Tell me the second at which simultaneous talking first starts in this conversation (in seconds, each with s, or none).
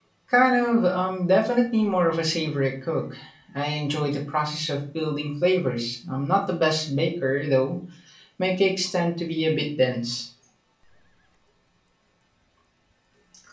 none